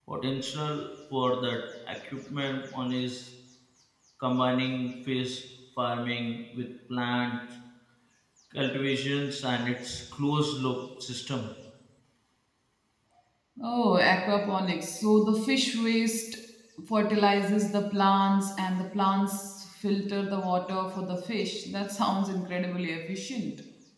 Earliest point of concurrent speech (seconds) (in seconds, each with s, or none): none